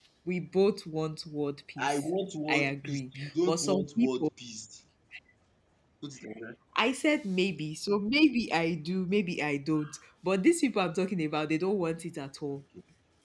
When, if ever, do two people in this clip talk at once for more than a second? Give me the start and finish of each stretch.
2.5-4.3

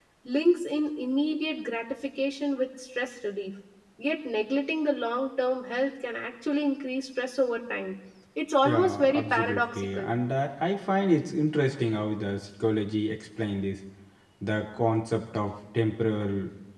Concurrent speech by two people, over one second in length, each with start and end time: 8.6-10.1

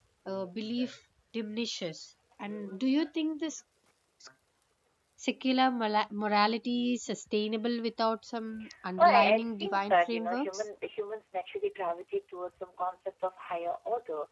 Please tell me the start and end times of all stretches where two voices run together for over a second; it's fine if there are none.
9.0-10.6

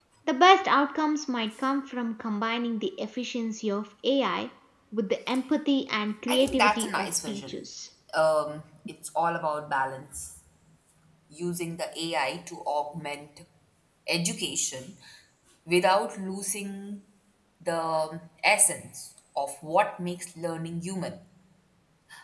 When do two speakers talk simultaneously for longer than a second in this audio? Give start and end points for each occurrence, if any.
6.3-7.6

